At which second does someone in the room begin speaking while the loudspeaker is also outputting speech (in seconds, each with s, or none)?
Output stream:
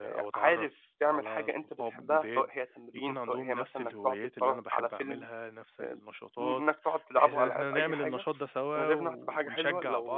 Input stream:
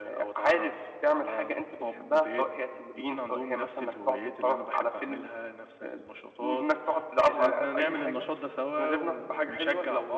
none